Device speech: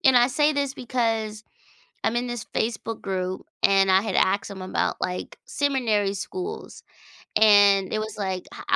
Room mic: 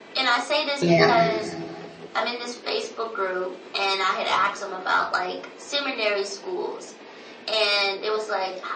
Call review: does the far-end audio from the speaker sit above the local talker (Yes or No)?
No